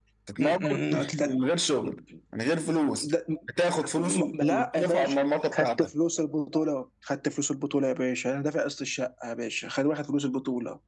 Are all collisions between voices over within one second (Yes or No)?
No